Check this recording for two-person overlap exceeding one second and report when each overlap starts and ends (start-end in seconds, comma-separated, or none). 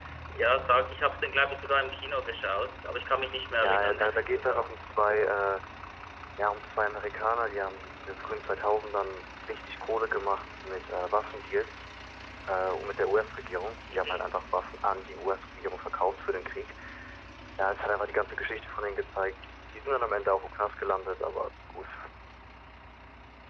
3.6-5.3